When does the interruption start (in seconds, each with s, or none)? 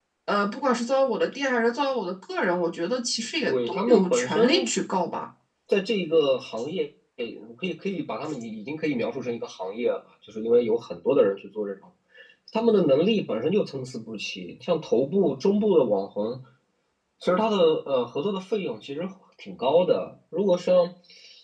3.5 s